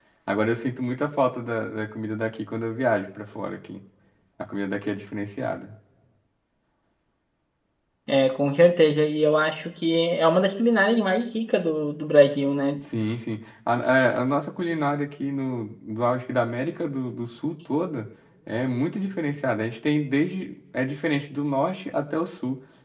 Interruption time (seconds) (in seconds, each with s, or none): none